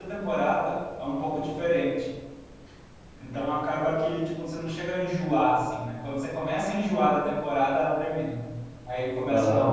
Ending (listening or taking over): taking over